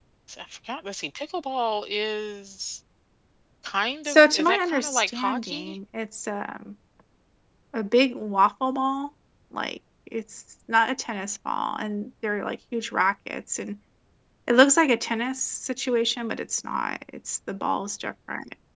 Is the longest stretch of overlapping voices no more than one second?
No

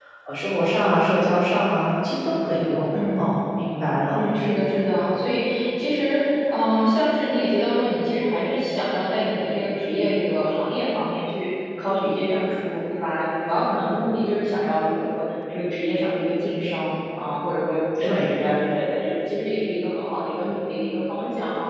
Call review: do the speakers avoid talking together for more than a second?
Yes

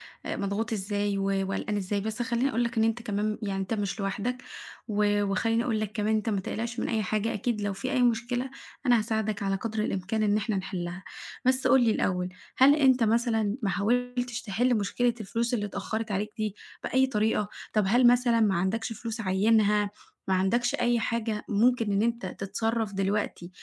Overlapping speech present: No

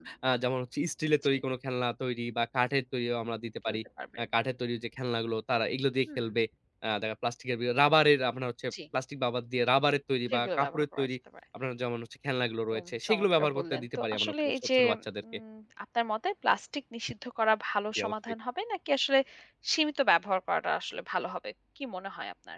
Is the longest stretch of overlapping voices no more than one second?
No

